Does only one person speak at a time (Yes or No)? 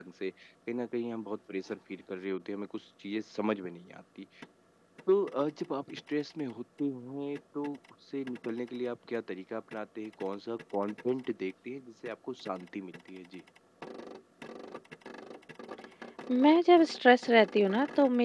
Yes